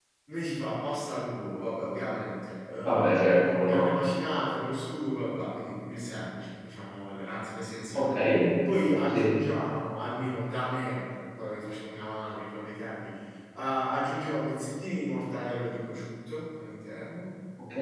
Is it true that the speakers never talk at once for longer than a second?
Yes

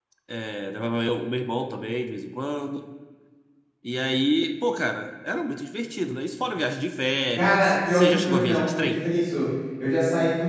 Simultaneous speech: Yes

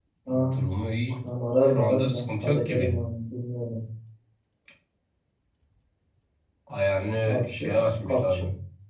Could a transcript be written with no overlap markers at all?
No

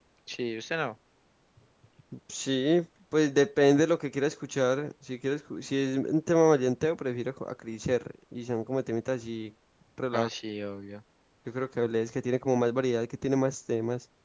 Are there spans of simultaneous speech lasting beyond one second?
No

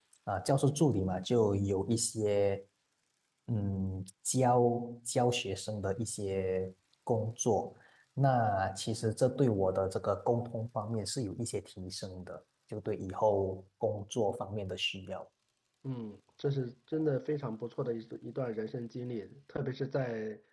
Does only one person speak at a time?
Yes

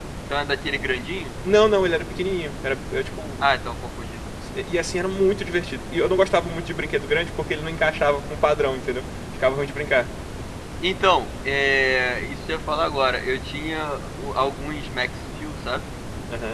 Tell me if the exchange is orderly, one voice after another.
Yes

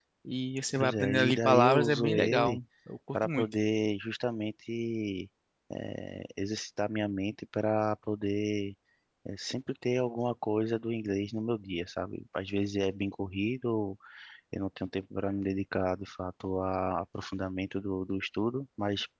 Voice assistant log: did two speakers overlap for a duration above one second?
Yes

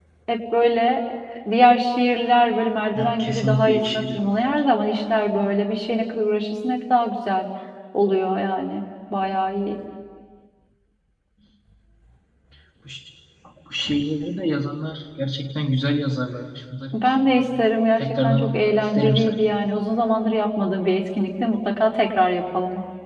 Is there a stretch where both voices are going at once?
Yes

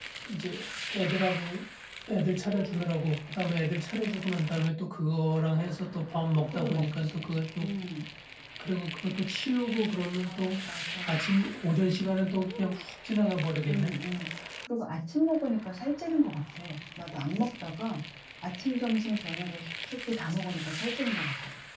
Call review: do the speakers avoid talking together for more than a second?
No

